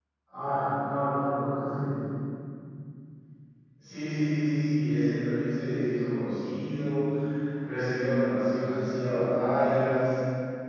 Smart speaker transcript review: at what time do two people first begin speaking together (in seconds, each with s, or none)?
none